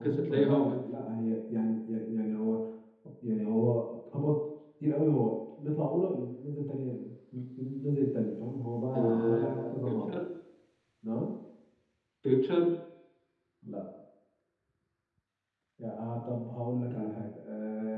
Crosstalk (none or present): present